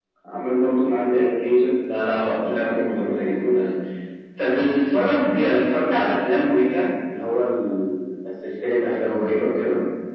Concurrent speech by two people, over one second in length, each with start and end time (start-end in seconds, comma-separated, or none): 2.4-3.7